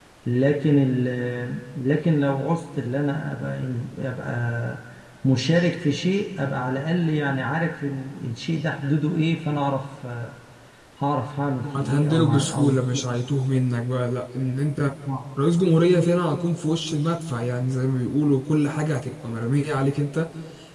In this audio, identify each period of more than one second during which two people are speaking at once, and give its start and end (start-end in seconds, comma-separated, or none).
11.6-13.0